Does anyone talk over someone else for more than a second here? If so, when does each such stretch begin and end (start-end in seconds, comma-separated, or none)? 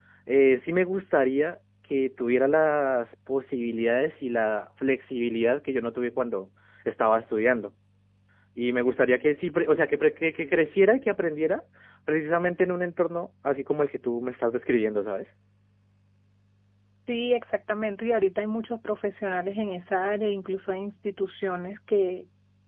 none